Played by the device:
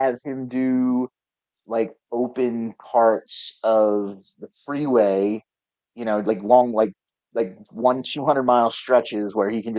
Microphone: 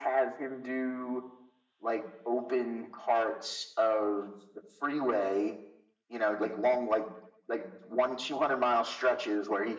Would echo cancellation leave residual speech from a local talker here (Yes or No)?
No